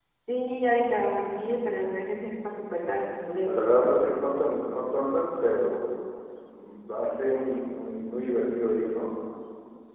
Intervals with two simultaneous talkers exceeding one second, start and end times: none

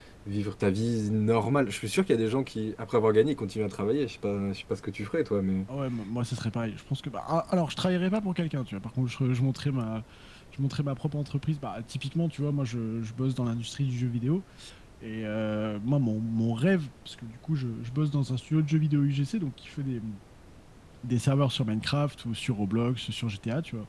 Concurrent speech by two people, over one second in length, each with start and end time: none

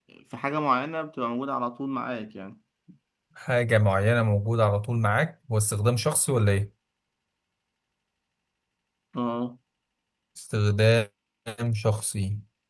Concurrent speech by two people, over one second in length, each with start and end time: none

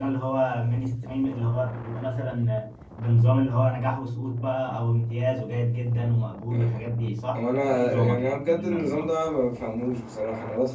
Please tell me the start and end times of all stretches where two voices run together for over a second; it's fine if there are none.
7.3-9.1

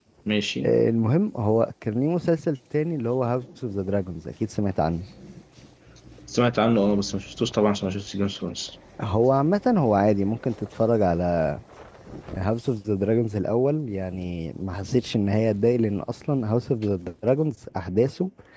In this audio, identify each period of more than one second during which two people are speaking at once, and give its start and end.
none

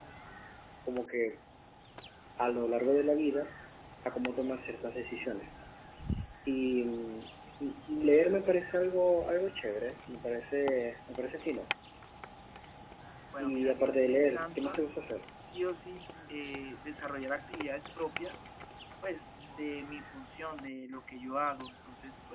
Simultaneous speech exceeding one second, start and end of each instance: 13.4-14.8

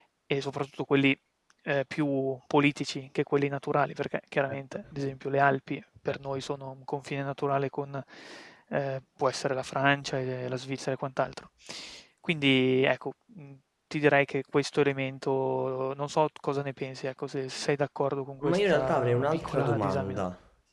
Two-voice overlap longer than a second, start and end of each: 18.5-20.2

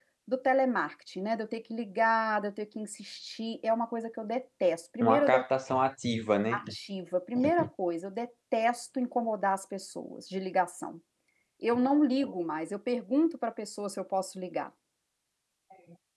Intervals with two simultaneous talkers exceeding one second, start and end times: none

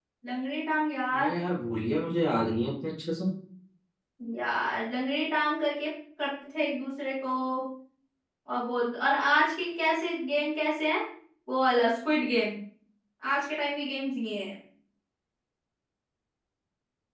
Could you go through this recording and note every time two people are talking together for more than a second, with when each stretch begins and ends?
none

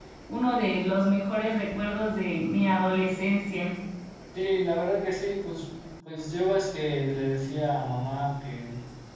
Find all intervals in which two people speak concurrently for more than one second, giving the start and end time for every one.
none

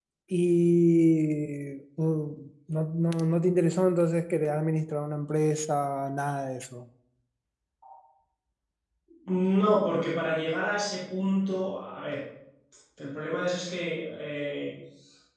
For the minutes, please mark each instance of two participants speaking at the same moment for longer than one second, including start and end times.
none

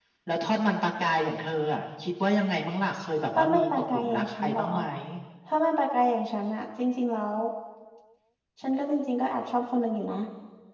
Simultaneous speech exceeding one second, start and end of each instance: 3.4-4.7

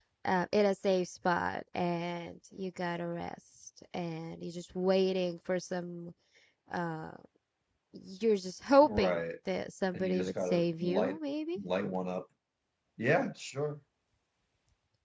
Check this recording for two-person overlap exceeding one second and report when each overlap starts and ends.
9.9-11.2

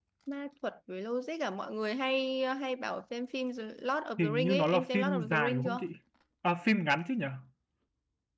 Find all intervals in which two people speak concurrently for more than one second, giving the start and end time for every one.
4.2-5.8

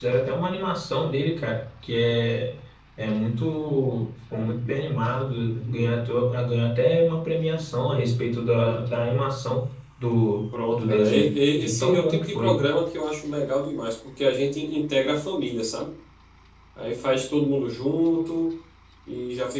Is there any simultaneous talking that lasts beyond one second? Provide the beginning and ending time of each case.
10.7-12.6

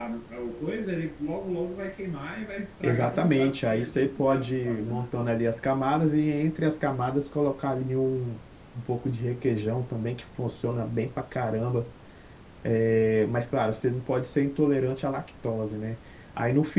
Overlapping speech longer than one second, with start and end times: 2.8-5.1

